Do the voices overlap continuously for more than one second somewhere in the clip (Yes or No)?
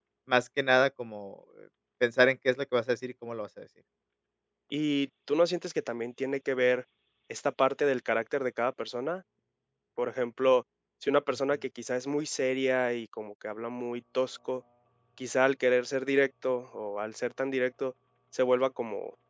No